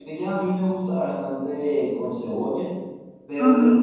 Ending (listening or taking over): listening